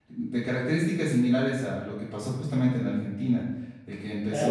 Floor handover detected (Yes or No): Yes